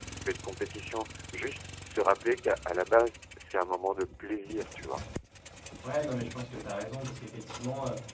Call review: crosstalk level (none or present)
none